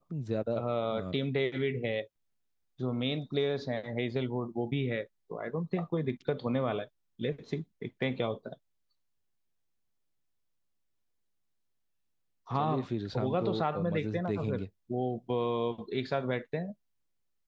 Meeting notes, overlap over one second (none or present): present